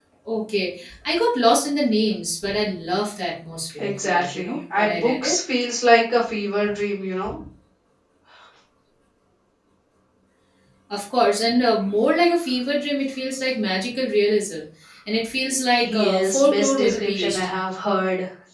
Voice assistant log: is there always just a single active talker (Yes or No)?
No